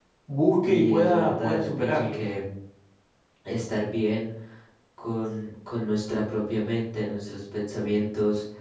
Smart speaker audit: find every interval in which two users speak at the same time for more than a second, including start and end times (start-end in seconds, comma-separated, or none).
0.7-2.1